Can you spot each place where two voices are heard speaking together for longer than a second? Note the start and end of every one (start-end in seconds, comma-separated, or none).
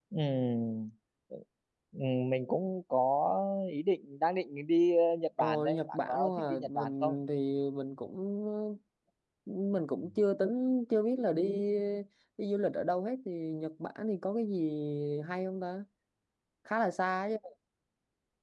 5.4-7.2